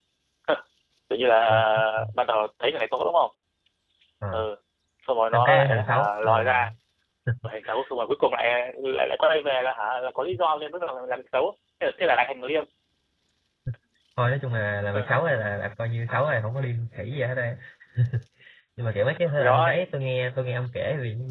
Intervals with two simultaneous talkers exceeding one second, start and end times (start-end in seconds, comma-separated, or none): 5.3-6.6